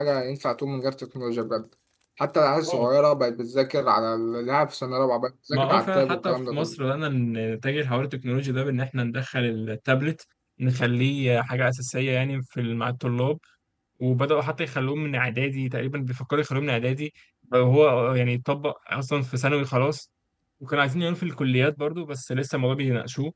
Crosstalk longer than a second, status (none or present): present